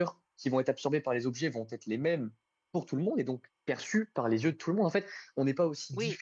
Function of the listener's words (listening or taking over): listening